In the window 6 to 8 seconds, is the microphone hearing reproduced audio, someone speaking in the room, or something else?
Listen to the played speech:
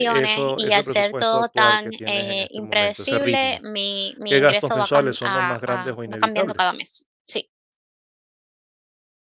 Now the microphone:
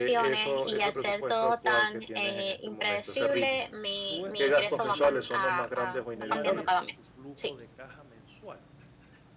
both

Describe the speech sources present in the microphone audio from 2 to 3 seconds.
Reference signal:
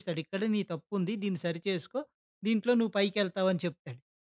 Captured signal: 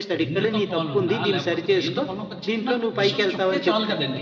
both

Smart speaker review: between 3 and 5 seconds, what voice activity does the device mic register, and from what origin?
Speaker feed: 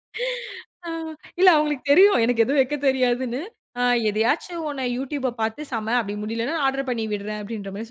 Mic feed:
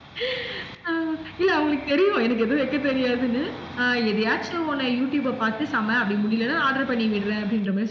echo only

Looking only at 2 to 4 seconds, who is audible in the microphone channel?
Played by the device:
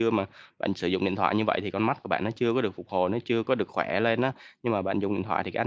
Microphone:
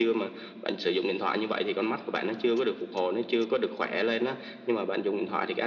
echo only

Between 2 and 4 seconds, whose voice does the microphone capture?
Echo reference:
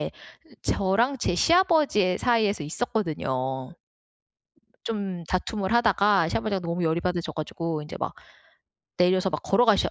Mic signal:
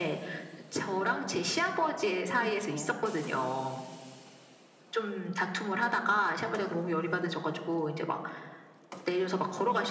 both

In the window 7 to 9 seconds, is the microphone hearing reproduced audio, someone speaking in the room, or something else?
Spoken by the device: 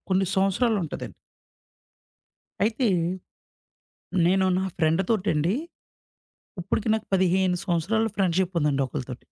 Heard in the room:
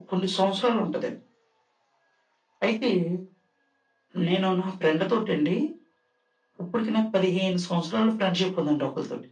echo only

